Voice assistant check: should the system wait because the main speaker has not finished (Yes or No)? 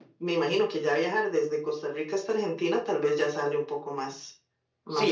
No